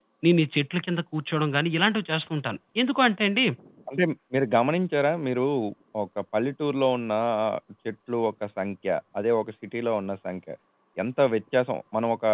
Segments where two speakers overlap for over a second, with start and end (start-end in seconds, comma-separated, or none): none